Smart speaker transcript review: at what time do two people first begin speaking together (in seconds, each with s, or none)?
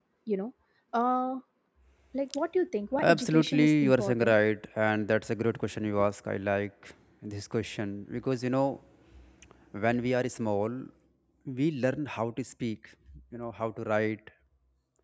3.0 s